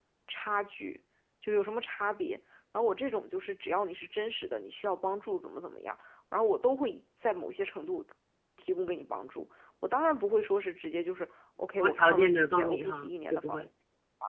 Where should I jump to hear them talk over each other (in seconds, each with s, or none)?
11.7 s